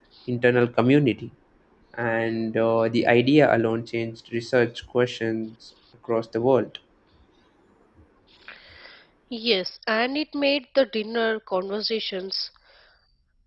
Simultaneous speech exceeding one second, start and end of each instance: none

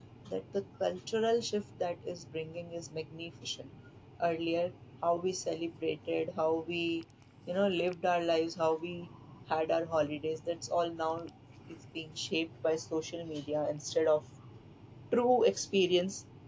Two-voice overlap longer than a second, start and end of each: none

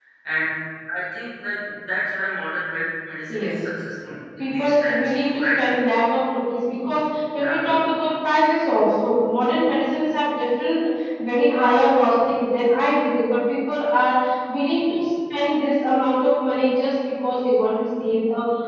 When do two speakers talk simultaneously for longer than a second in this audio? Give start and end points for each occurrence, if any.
4.4-5.6

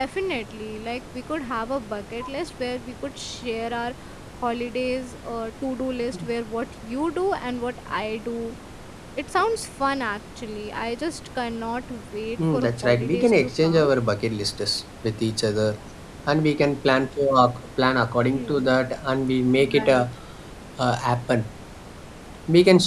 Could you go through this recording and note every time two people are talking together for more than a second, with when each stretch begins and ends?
12.5-13.9

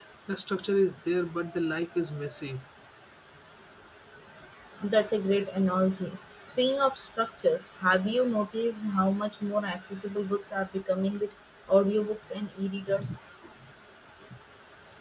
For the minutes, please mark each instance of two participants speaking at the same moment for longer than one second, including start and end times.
none

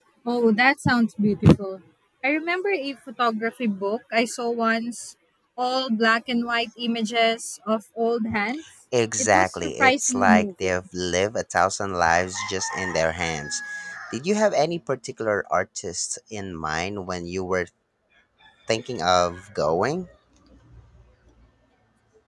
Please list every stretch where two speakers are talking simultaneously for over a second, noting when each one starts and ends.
9.2-10.8

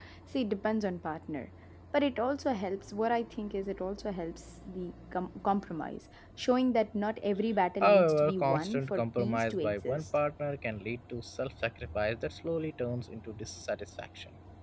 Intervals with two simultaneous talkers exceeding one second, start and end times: 7.8-10.1

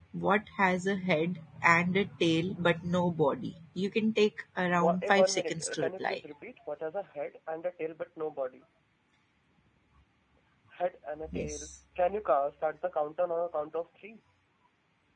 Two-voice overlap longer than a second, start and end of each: 4.7-6.2

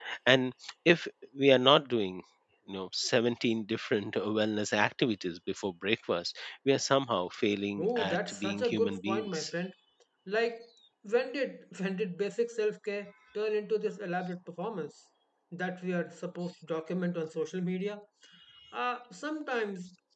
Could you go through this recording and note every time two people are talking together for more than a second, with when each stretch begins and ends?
7.8-9.5

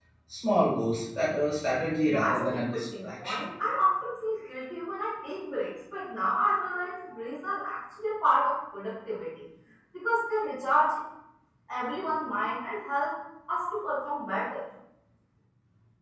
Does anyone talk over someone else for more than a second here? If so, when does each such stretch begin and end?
2.1-3.4

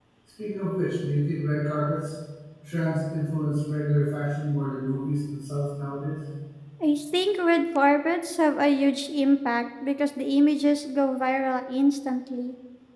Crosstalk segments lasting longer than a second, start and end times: none

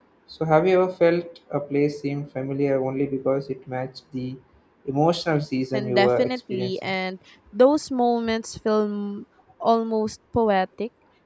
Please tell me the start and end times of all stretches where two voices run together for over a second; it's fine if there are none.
5.7-6.9

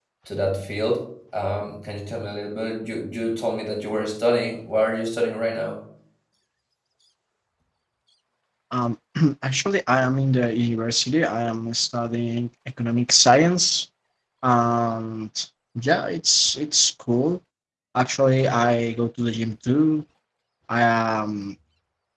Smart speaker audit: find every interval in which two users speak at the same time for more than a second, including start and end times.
none

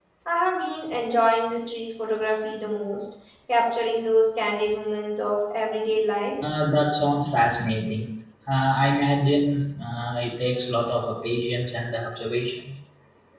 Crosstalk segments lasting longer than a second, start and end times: none

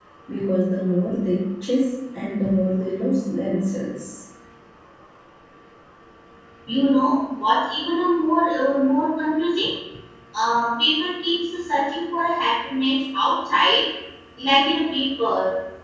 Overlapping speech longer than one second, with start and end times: none

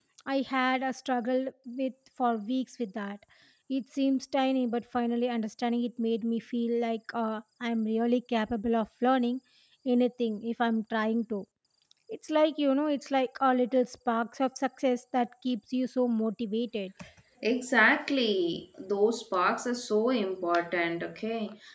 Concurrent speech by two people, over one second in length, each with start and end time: none

